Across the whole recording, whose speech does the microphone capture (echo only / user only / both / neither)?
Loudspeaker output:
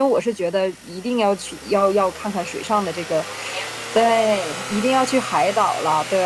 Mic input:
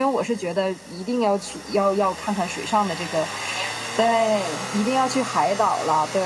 echo only